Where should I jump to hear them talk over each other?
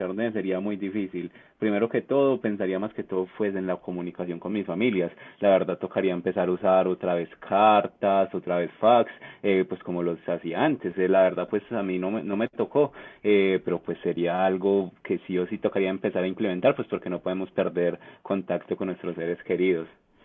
none

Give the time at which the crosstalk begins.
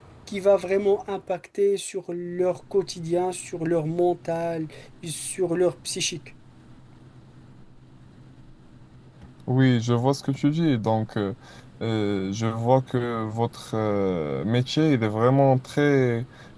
none

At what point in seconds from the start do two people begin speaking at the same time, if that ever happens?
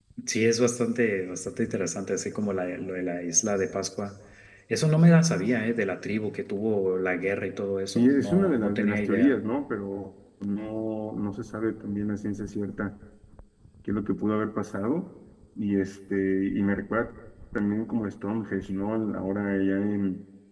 8.0 s

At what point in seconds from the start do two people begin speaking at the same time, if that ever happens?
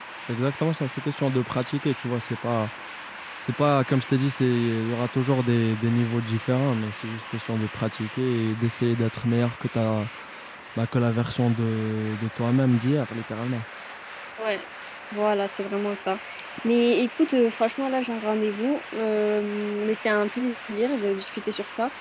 none

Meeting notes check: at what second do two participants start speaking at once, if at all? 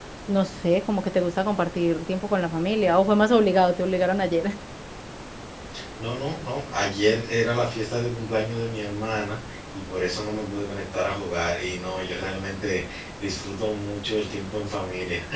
none

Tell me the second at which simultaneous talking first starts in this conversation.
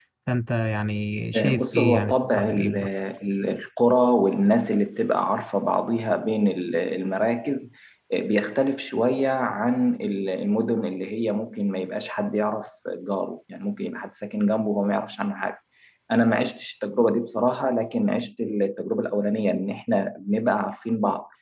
1.3 s

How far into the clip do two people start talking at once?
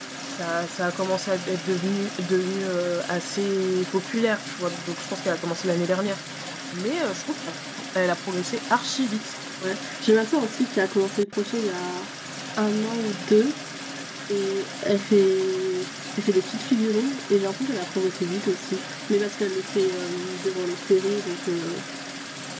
none

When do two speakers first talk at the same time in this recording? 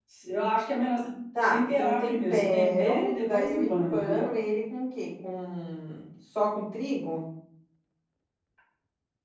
1.5 s

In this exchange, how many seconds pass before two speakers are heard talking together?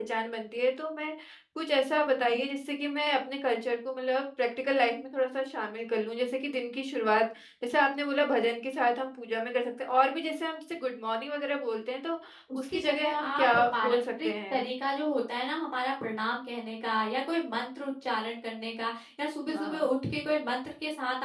12.6 s

